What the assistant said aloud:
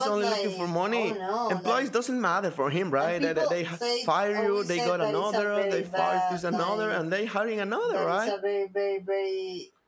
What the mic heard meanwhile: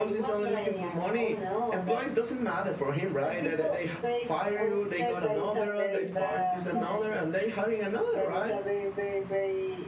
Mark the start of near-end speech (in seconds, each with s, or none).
none